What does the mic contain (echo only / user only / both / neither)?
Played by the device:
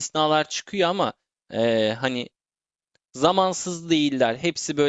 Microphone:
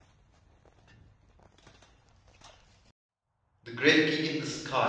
user only